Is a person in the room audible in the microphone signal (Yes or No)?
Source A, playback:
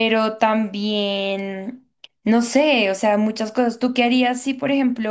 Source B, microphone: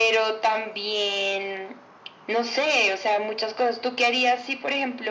No